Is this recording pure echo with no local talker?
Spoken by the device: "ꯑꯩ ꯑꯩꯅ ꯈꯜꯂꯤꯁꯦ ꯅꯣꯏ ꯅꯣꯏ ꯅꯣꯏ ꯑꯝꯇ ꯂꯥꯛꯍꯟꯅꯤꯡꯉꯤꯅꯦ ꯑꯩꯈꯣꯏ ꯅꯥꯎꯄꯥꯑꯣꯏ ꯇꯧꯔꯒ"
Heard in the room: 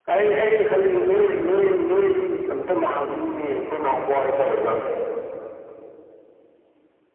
Yes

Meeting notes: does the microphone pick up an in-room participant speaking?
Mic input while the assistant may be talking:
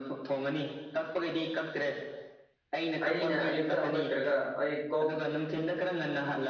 Yes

